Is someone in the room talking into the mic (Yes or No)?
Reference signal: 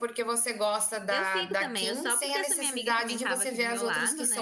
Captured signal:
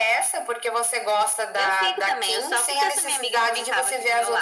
No